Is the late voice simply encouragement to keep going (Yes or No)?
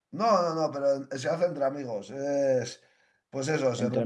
Yes